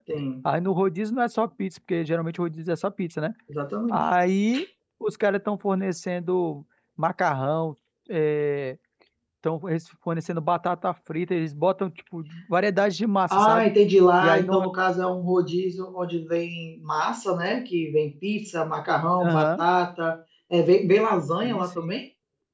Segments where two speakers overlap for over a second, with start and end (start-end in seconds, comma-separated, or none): none